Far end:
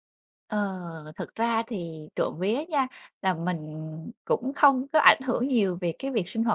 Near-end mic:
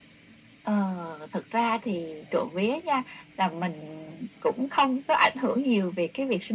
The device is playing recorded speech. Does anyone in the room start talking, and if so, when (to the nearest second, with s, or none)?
none